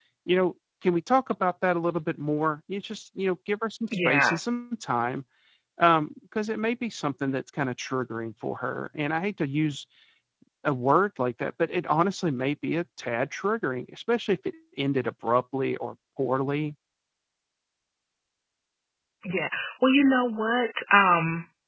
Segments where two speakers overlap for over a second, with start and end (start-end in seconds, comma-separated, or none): none